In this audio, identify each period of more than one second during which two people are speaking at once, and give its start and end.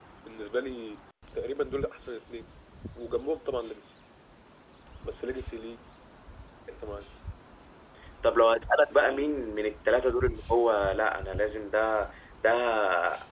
none

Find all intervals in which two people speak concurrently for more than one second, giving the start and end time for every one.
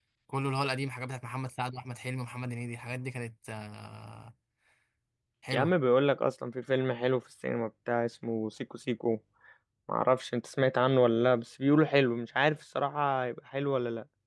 none

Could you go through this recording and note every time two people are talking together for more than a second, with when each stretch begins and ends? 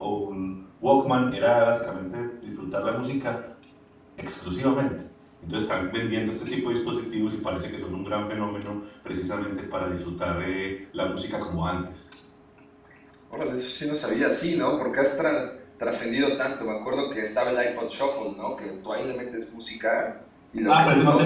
none

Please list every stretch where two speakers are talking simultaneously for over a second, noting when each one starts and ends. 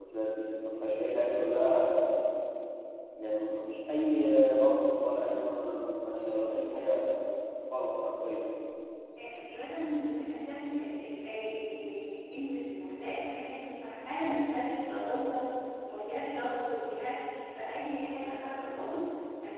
none

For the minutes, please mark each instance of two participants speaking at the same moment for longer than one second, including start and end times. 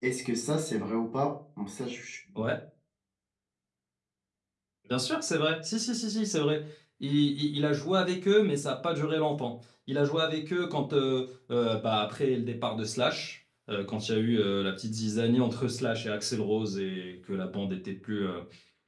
none

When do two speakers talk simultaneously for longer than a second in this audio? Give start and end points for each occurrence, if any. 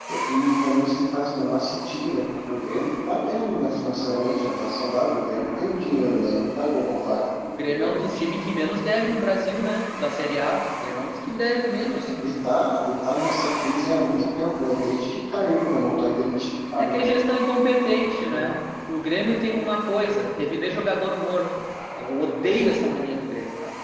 none

